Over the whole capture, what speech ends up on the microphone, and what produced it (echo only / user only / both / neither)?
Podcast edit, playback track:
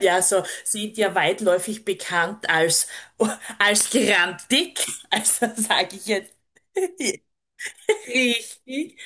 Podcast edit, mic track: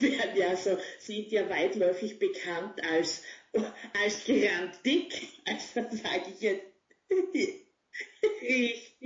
echo only